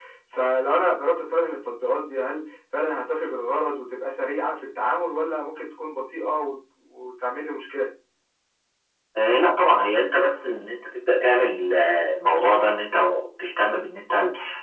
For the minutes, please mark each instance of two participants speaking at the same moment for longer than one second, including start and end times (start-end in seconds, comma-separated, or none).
none